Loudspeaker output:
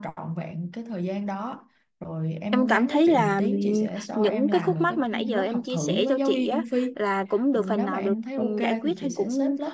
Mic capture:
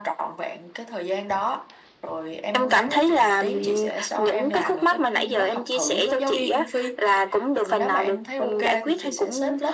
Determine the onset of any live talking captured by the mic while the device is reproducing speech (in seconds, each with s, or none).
none